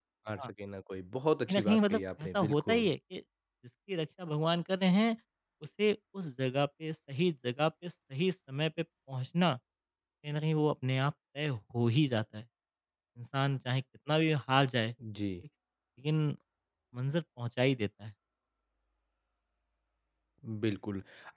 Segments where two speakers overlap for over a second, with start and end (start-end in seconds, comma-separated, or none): 1.5-2.9